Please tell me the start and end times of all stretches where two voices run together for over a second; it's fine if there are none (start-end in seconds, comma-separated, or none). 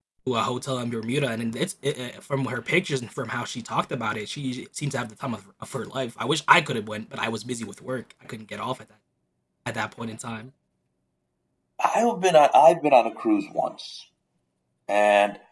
none